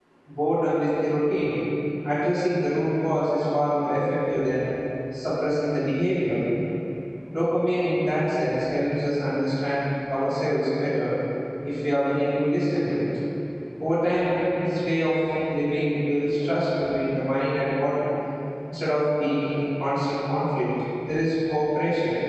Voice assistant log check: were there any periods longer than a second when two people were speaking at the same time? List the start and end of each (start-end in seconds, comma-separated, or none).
none